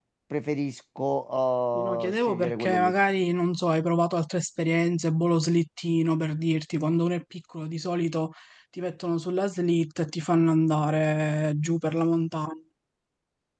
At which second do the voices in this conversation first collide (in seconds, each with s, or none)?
1.7 s